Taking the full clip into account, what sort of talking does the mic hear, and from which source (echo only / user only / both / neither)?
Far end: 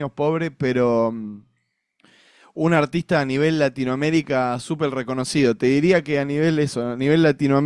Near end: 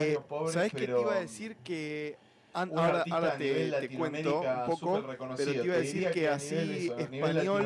both